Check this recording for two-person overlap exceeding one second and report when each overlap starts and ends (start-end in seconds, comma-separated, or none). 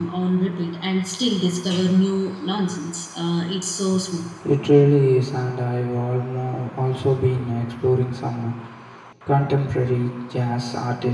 none